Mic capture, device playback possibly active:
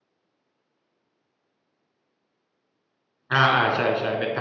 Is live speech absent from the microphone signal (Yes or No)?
No